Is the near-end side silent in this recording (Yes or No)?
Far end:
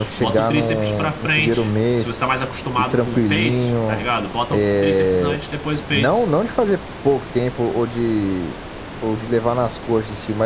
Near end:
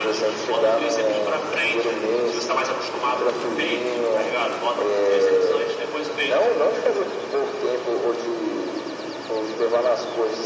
Yes